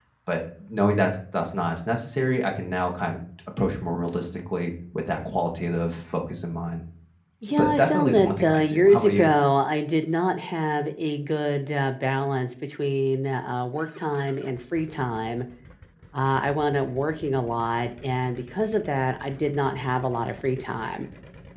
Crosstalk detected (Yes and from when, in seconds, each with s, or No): Yes, from 7.5 s